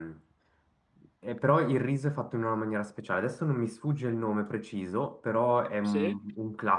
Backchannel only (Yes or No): Yes